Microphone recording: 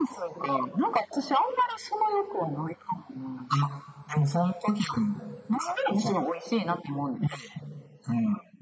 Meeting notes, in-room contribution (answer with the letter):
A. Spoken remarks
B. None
B